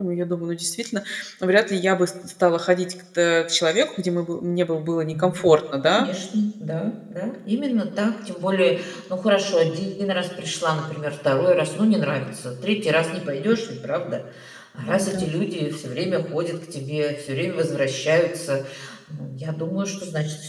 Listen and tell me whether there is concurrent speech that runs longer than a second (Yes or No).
No